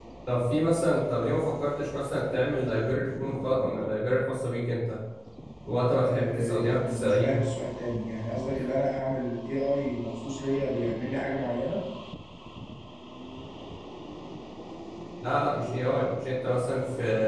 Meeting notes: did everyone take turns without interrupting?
No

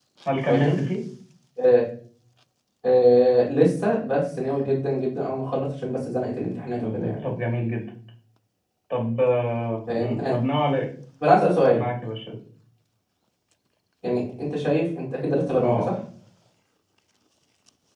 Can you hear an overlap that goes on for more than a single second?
No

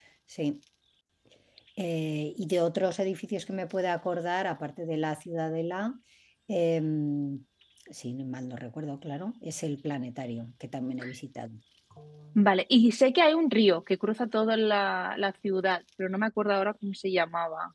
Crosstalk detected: No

